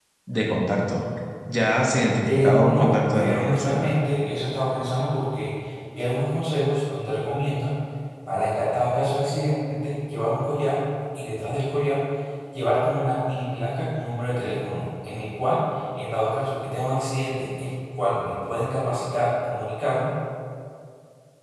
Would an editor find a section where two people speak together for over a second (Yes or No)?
Yes